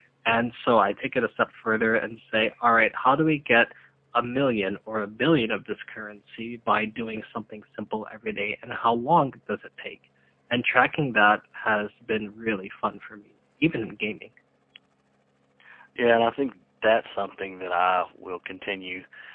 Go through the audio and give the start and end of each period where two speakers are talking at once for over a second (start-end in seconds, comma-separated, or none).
none